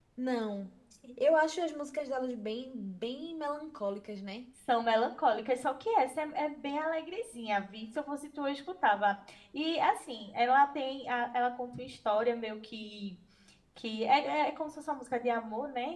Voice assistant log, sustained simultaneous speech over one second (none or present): none